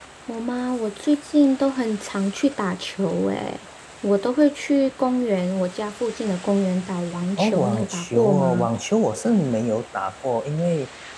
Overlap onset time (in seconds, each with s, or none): 7.4 s